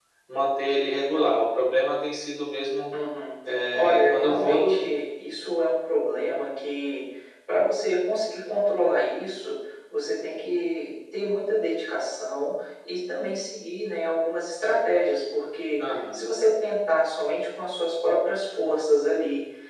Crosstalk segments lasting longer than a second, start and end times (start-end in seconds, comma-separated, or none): 3.7-5.0